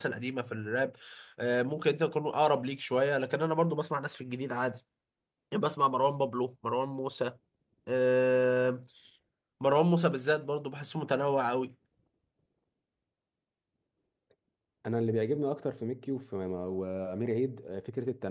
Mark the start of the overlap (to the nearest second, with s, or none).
none